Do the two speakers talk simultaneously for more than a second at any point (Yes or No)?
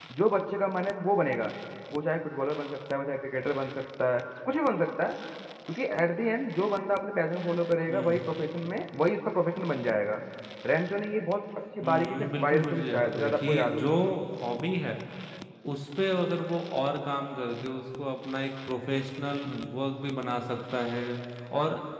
Yes